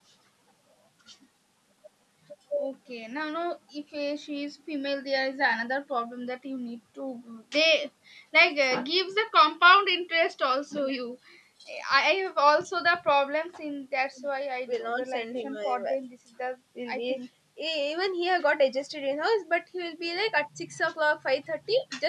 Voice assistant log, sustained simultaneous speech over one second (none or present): present